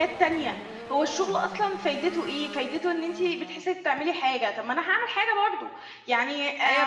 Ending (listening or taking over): taking over